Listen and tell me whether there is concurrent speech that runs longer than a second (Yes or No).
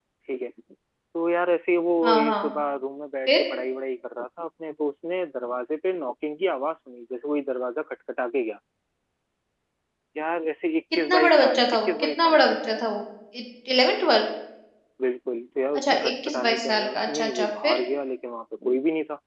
Yes